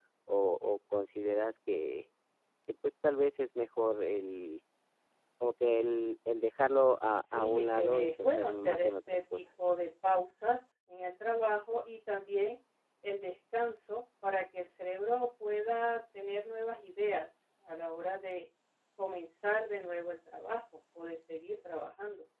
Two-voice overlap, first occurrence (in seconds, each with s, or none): 7.3 s